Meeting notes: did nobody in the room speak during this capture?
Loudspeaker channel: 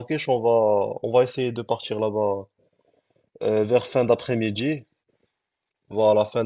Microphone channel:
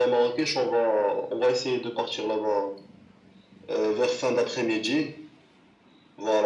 Yes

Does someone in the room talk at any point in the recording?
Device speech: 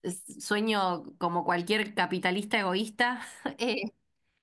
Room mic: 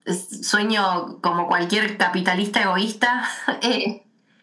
No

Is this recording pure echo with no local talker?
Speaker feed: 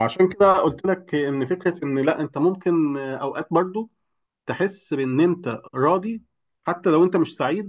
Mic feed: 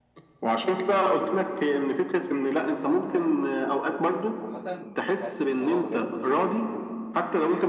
No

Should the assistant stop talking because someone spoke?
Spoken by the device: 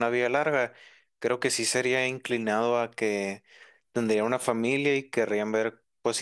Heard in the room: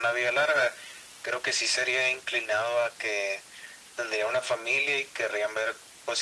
No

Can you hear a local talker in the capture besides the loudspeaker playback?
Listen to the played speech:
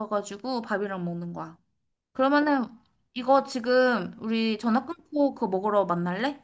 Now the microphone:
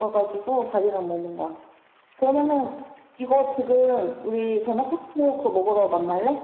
No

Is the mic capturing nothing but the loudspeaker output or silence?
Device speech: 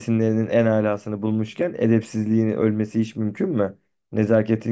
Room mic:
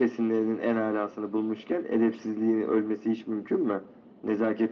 Yes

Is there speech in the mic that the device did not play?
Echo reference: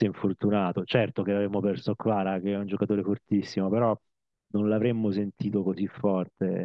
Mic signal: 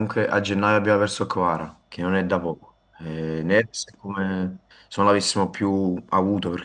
Yes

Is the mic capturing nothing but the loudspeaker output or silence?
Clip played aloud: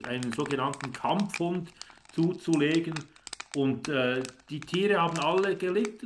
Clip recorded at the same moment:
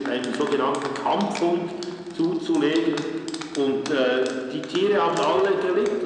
Yes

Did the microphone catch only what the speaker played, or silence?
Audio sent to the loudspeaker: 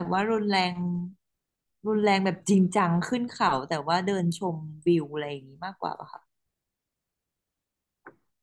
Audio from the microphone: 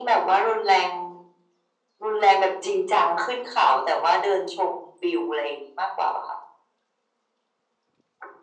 Yes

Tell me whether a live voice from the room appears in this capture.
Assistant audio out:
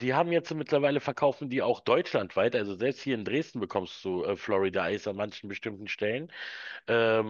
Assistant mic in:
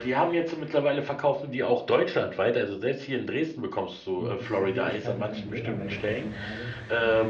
Yes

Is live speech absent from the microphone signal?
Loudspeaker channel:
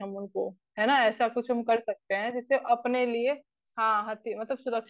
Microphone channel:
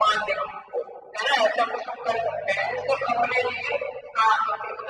Yes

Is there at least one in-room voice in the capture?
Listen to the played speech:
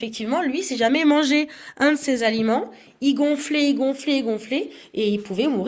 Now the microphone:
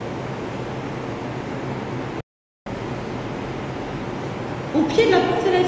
Yes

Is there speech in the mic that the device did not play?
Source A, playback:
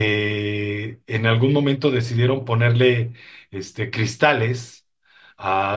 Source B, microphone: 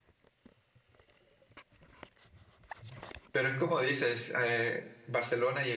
Yes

